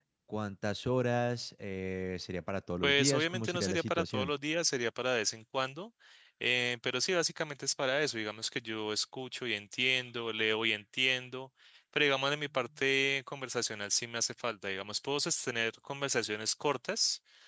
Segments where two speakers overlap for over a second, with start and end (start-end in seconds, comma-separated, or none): 2.8-4.3